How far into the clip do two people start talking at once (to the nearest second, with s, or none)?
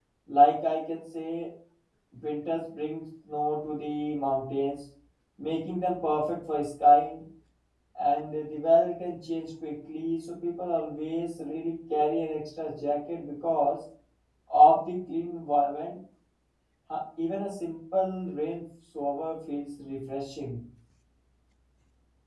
none